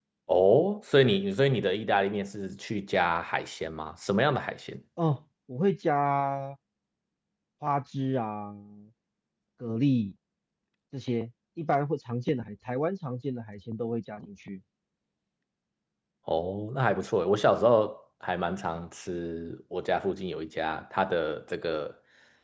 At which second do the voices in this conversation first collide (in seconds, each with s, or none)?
none